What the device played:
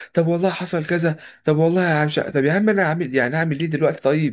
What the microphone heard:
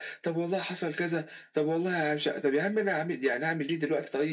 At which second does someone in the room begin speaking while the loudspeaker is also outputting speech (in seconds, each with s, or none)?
none